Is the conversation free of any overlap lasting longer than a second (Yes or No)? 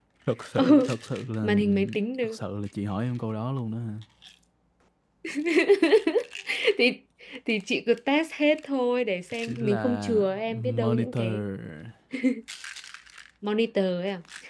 No